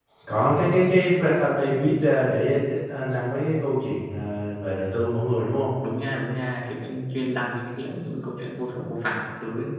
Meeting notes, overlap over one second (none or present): none